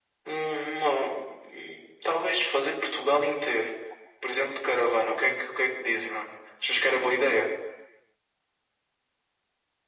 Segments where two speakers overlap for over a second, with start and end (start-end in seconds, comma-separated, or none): none